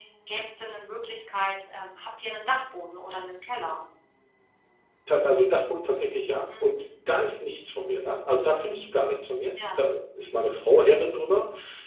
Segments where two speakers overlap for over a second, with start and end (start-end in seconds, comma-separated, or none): none